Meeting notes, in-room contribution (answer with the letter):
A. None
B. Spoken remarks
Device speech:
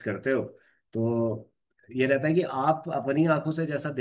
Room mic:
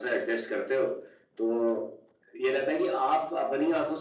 A